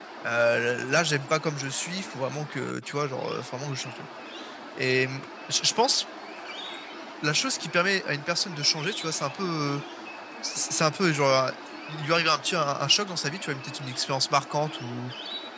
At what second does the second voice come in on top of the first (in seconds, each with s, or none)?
none